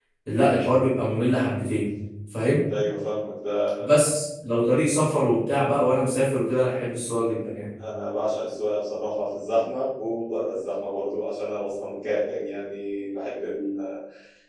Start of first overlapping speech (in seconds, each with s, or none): none